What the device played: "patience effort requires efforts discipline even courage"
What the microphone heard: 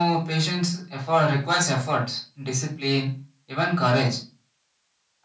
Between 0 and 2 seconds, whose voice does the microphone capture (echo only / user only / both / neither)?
echo only